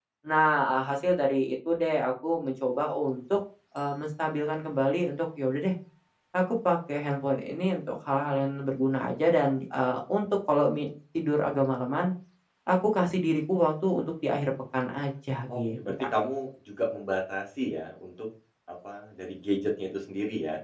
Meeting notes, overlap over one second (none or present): none